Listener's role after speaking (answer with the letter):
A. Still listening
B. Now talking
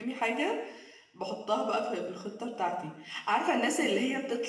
A